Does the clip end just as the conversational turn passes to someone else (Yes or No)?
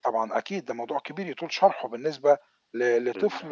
No